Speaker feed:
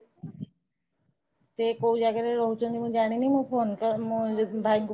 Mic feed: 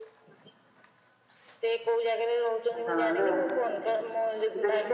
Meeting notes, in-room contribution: present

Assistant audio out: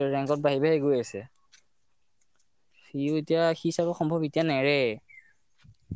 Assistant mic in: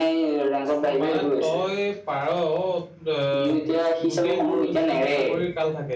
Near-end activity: present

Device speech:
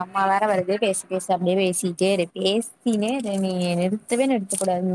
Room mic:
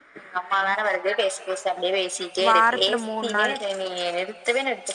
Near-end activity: present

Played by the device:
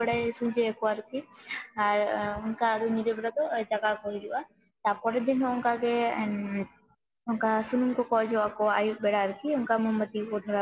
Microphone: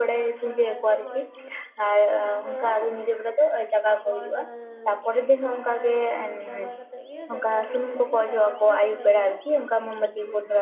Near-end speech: present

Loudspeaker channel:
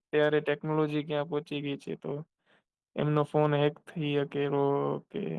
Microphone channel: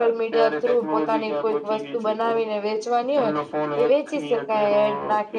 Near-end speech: present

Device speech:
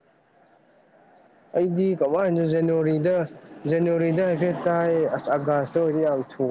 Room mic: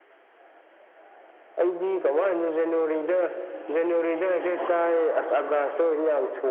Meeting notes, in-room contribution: none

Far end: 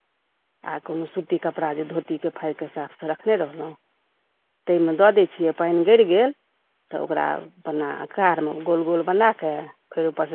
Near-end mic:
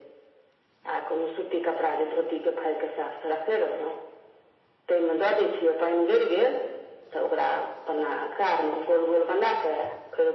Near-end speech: none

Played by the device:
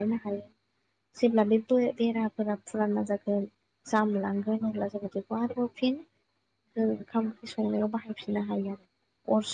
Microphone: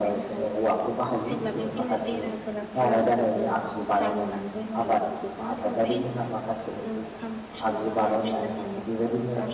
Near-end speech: present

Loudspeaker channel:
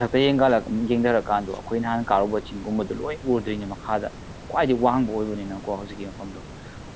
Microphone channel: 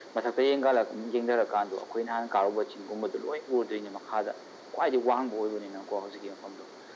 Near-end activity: none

